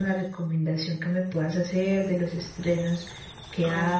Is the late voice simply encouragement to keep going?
No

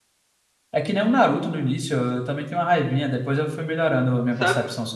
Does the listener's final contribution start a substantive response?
Yes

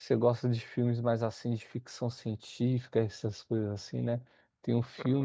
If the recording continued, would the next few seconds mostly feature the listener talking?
No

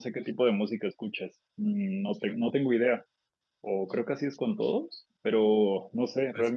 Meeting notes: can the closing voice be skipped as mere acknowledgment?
Yes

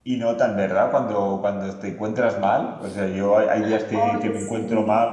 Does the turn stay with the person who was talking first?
Yes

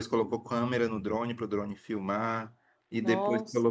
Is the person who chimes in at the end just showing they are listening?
Yes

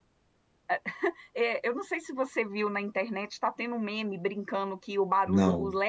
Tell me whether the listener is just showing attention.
Yes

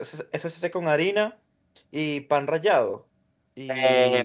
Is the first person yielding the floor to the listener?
Yes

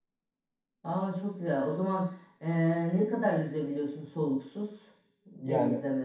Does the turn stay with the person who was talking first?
No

